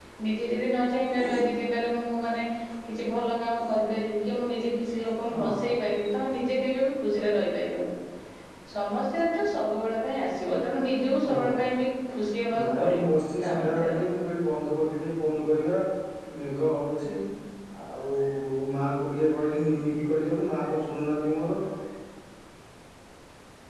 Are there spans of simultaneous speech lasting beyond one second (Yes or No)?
Yes